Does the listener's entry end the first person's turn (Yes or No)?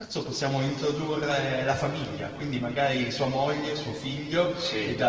No